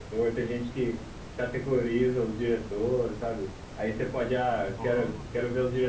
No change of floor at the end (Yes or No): Yes